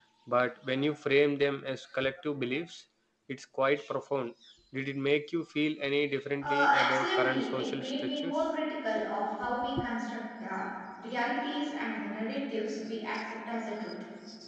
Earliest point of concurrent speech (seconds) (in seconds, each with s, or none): 6.4 s